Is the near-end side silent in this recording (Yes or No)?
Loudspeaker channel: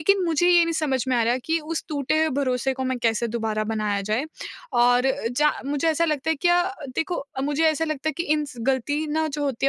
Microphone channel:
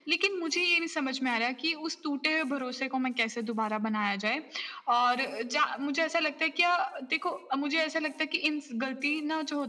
Yes